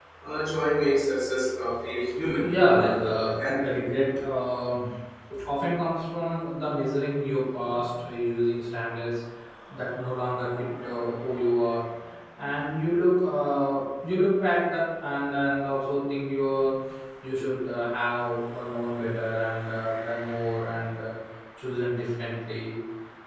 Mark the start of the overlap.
2.4 s

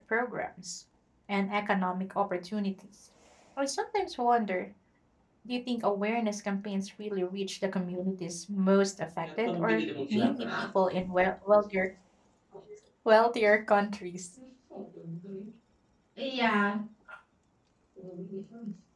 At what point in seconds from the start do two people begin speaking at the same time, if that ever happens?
9.2 s

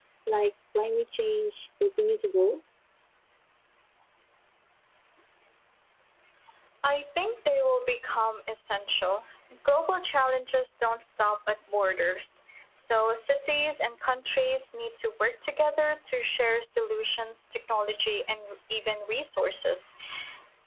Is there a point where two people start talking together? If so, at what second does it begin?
none

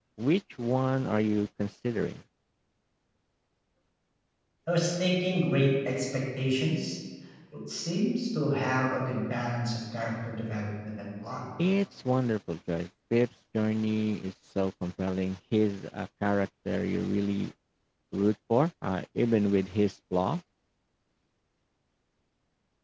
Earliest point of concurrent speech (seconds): none

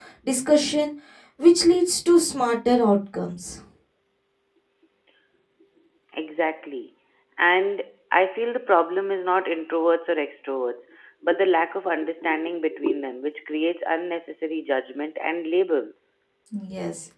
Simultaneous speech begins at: none

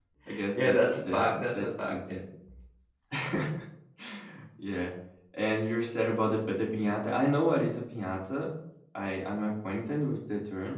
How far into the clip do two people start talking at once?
0.5 s

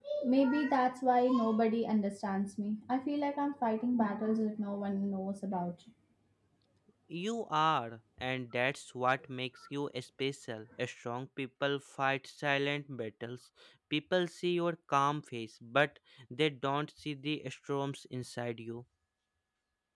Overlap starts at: none

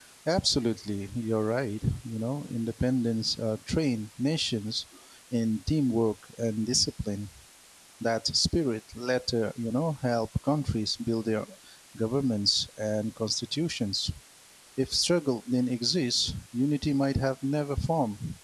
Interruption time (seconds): none

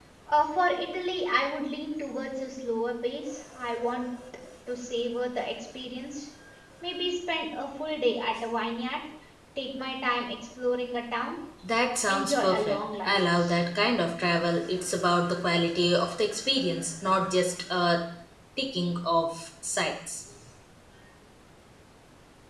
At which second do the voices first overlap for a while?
12.0 s

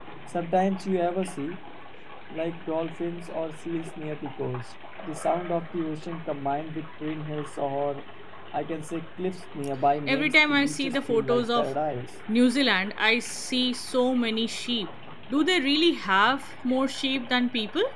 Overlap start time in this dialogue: 10.1 s

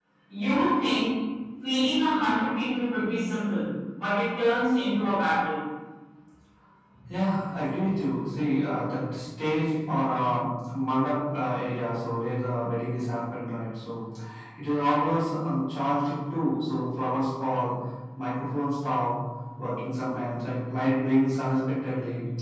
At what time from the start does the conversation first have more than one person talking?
none

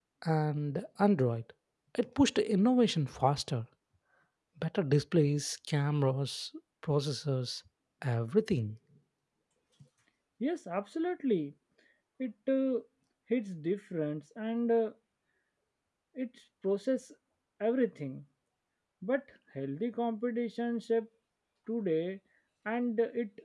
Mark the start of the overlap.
none

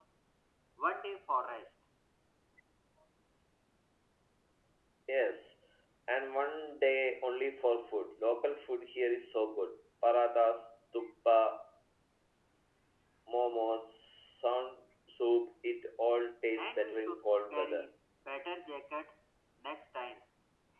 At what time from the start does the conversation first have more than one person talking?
16.6 s

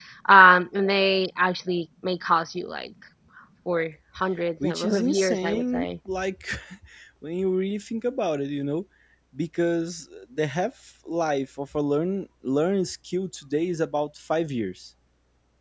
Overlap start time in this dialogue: 4.6 s

